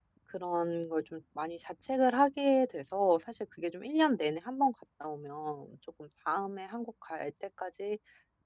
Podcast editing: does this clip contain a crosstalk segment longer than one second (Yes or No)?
No